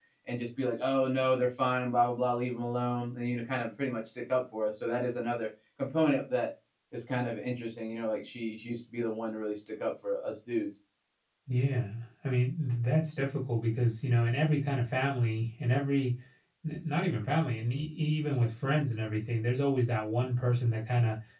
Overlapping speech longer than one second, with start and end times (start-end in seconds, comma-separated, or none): none